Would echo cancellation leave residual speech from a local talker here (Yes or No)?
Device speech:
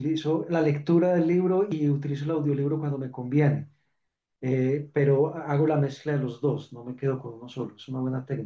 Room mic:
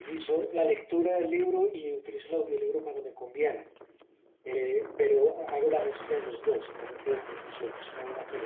No